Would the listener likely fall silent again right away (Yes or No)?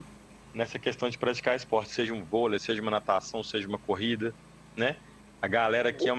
Yes